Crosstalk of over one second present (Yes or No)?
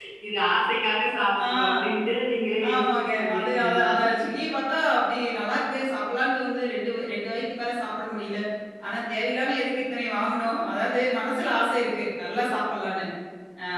Yes